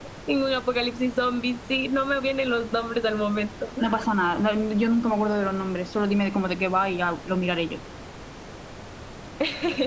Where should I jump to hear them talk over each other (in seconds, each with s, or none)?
none